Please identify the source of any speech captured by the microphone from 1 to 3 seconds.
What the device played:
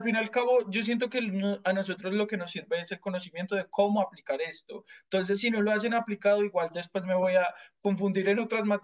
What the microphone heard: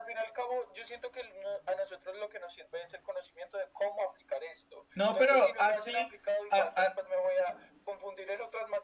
echo only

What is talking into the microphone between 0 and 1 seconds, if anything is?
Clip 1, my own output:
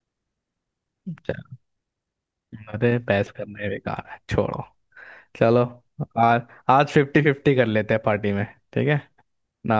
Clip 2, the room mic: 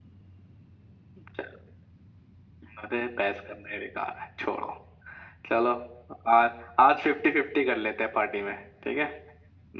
neither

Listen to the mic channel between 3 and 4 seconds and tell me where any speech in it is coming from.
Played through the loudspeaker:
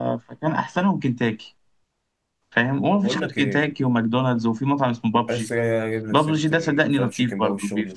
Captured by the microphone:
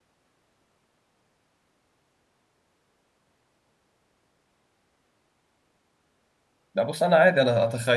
neither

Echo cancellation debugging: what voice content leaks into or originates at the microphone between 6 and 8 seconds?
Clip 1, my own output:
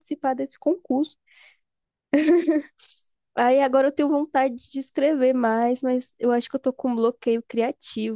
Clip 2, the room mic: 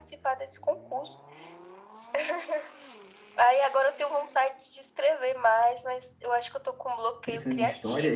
both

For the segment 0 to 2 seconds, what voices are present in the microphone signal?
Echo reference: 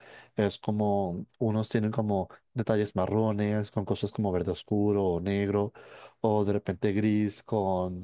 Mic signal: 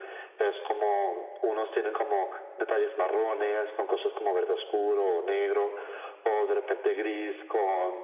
echo only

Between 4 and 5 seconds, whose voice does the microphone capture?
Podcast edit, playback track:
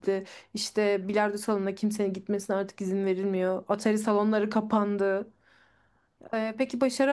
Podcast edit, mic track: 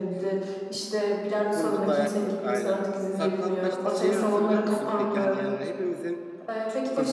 both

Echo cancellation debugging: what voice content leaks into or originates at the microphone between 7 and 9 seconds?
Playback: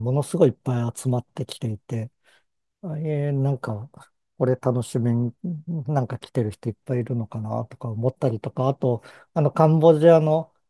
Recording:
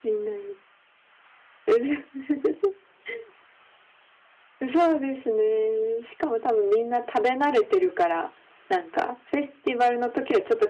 user only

